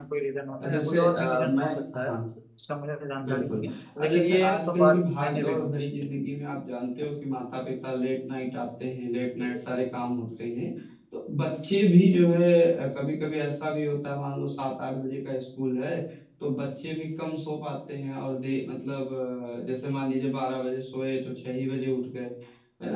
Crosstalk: present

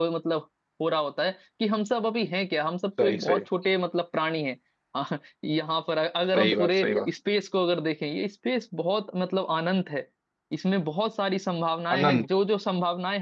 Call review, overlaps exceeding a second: none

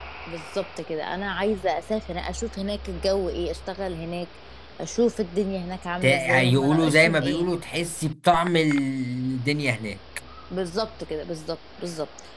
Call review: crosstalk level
present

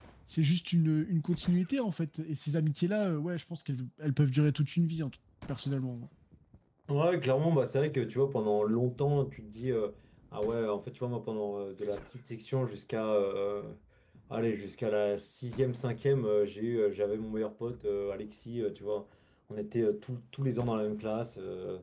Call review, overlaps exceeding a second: none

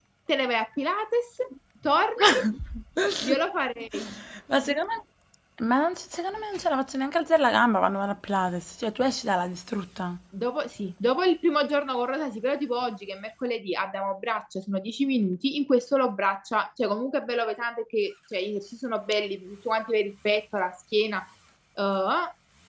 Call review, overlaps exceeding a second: none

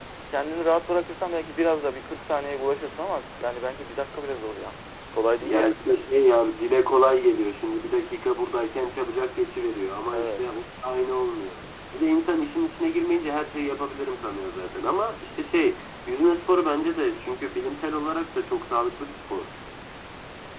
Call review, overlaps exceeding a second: none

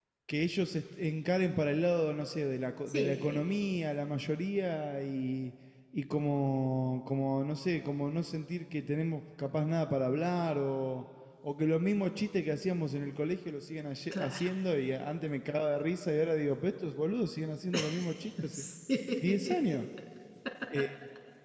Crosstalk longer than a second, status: none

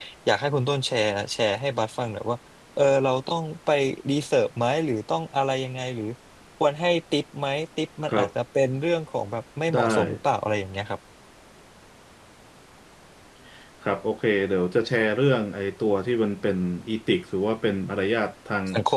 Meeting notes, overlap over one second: none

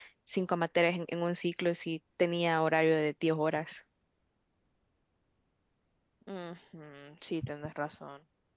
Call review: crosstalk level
none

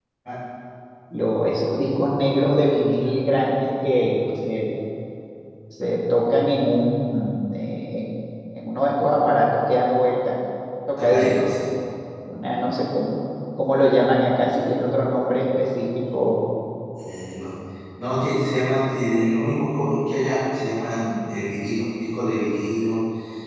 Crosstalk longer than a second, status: none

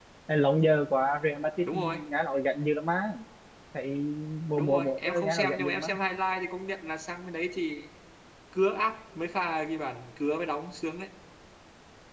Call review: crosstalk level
present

